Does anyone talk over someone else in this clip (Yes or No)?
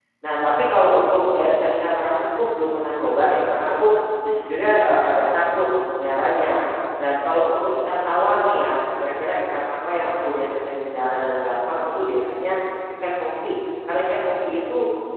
No